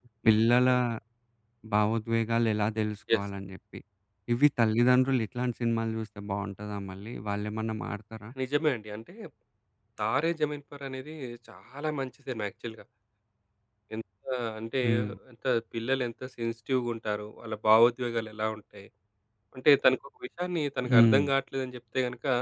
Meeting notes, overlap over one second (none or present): none